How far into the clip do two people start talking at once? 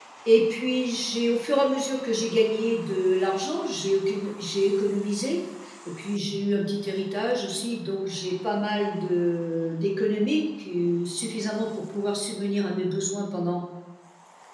none

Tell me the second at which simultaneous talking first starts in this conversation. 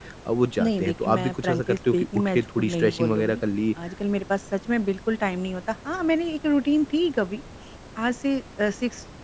0.6 s

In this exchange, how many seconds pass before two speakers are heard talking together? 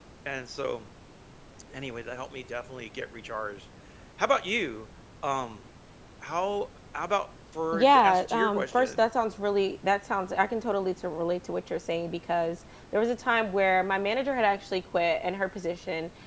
7.7 s

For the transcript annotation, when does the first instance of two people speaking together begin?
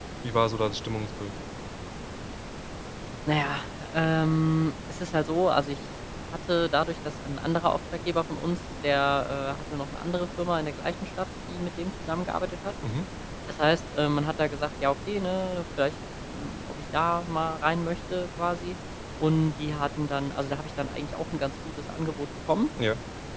none

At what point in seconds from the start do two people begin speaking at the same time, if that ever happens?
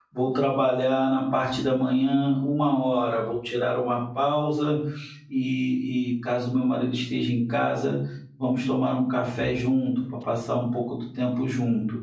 none

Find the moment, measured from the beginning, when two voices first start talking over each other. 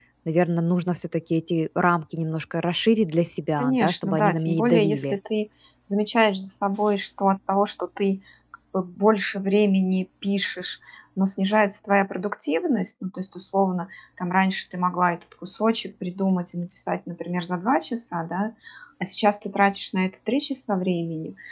3.6 s

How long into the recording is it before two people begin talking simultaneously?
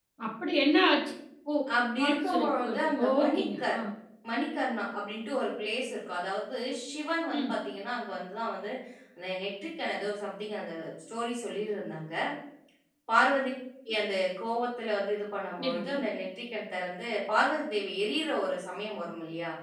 1.9 s

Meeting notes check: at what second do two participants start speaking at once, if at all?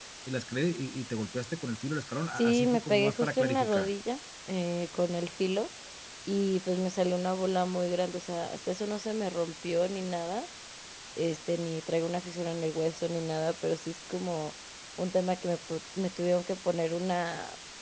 2.4 s

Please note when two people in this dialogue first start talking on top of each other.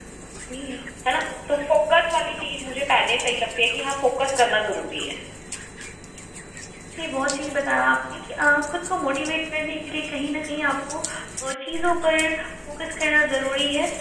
none

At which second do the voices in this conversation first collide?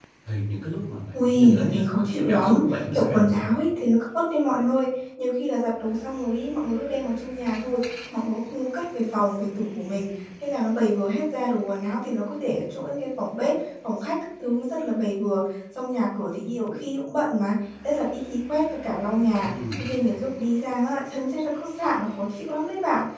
1.1 s

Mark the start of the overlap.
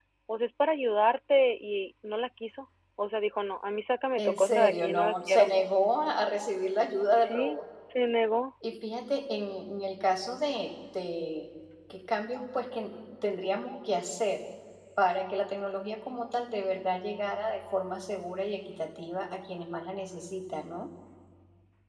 4.2 s

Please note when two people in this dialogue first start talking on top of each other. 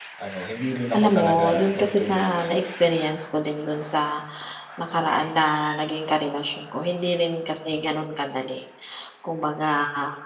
1.0 s

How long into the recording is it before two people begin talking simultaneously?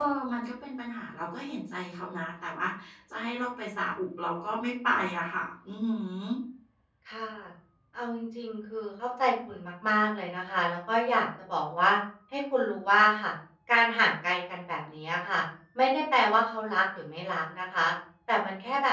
none

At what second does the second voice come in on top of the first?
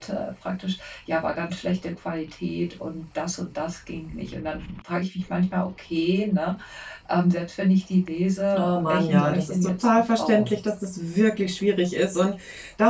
8.5 s

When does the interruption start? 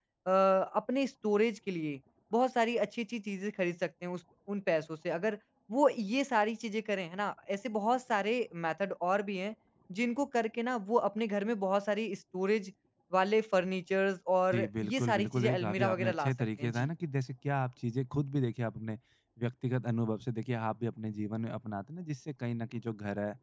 14.5 s

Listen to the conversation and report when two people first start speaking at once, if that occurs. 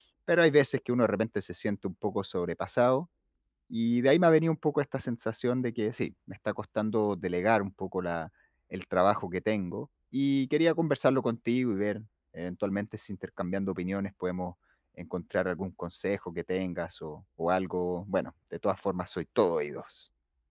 none

